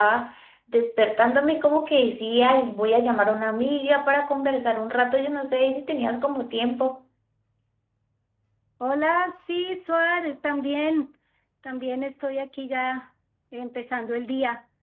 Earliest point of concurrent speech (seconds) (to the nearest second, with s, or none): none